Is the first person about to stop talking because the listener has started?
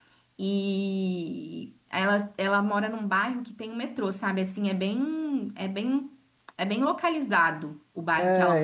Yes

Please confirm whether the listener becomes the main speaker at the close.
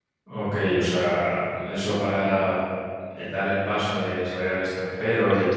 No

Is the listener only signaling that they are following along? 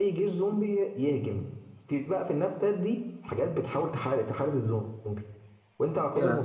Yes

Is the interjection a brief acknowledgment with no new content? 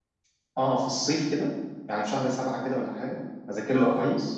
Yes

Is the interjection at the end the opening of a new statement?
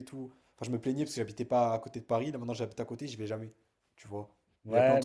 Yes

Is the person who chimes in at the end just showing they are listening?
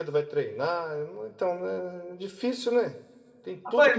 No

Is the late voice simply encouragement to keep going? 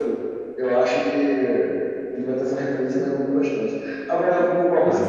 Yes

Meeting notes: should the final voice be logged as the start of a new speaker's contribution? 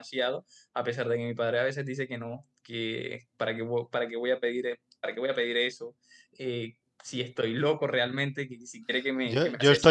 Yes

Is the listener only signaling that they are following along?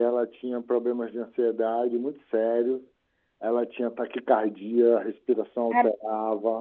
Yes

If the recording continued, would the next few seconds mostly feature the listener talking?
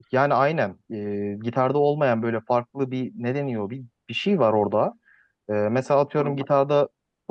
No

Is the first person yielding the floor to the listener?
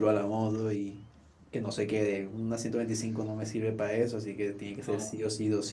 No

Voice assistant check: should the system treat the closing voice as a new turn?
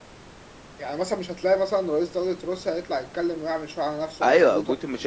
Yes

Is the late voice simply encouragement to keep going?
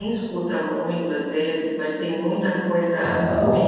No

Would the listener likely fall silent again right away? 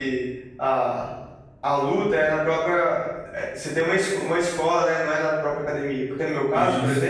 Yes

